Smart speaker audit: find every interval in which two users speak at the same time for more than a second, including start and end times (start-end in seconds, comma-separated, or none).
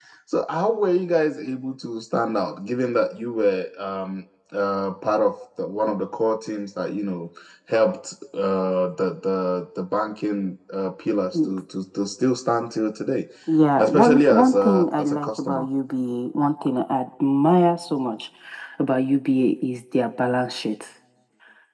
13.8-15.6